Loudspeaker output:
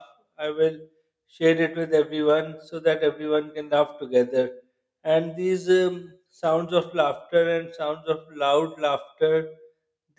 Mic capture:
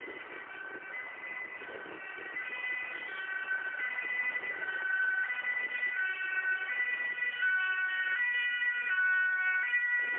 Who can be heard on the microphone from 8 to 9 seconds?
neither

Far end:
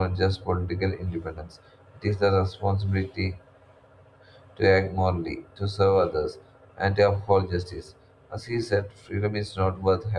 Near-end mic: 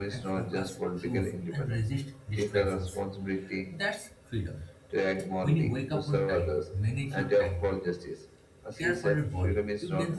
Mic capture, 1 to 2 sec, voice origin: both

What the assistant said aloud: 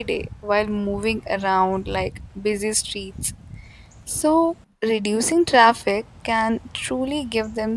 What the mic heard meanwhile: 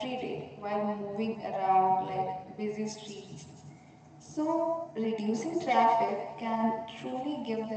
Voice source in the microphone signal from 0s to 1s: echo only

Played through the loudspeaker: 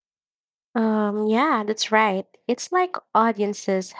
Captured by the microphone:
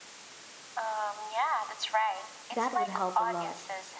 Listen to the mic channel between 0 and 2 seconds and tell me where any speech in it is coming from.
echo only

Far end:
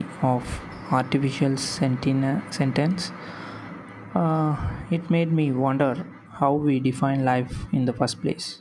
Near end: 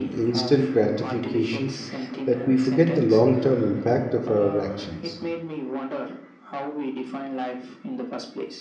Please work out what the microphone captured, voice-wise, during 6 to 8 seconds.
echo only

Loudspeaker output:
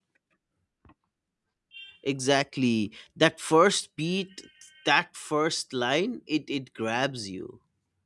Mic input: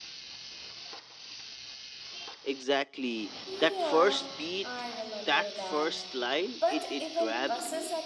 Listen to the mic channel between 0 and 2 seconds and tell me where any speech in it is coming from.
neither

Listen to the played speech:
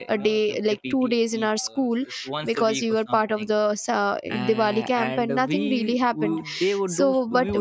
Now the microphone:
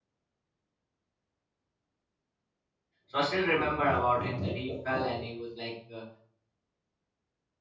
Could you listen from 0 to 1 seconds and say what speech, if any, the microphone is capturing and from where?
neither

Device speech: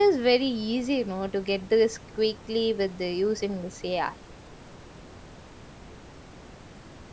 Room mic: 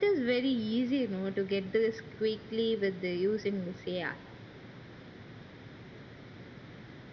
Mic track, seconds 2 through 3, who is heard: echo only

